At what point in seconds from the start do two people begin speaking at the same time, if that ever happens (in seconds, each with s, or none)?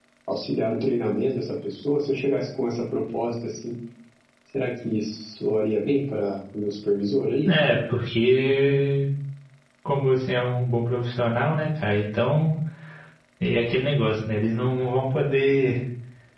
none